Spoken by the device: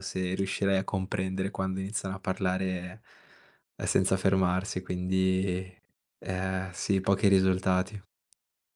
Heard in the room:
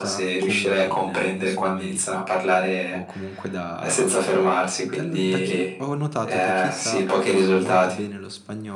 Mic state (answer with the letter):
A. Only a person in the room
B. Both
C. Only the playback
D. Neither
B